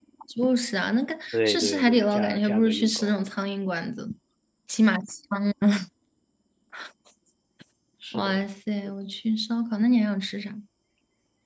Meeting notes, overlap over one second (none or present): present